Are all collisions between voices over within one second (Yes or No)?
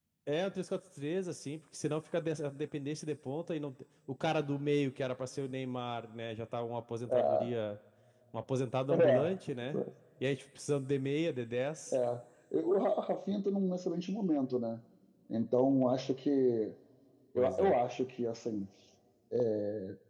Yes